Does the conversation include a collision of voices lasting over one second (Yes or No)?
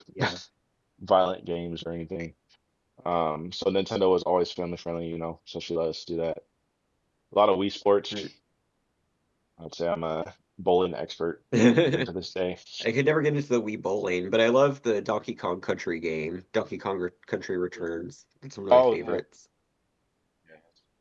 No